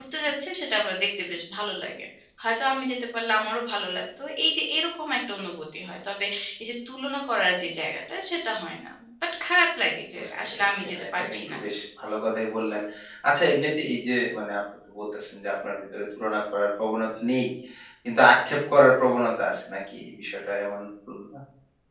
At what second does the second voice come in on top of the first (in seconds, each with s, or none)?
10.2 s